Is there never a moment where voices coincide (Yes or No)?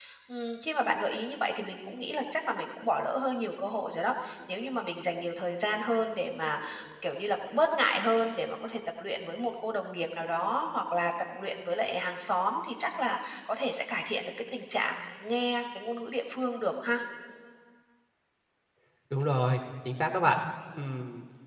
Yes